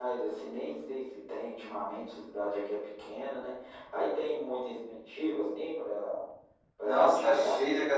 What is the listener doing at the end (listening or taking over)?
taking over